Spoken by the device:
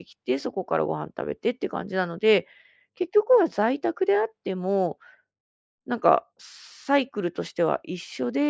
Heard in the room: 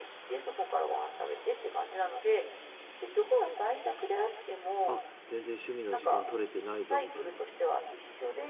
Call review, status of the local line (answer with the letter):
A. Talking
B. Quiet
A